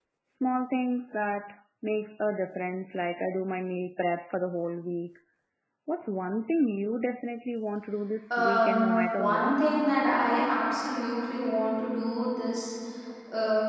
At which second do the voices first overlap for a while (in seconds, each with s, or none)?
8.3 s